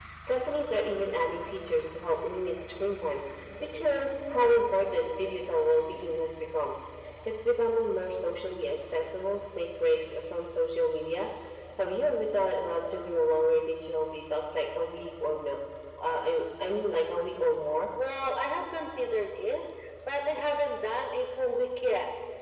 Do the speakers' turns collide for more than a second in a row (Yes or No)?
No